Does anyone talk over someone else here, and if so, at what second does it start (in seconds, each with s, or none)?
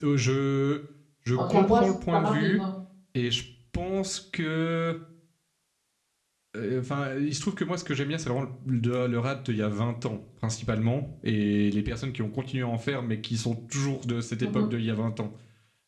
1.3 s